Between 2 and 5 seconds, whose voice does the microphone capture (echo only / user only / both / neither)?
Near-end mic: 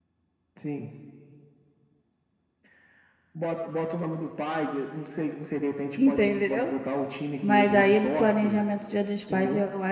echo only